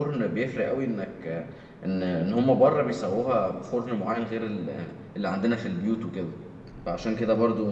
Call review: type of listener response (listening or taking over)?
listening